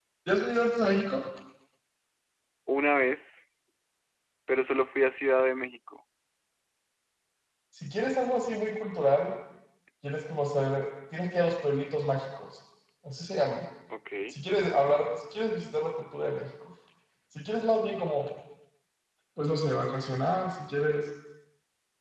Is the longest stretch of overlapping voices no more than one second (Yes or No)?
Yes